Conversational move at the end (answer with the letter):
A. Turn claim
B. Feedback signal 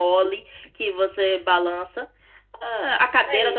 A